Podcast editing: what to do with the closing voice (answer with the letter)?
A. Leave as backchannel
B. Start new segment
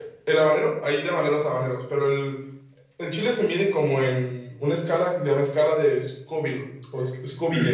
B